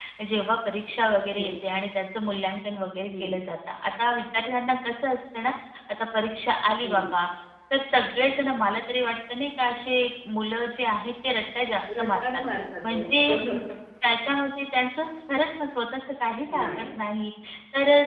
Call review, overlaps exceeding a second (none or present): none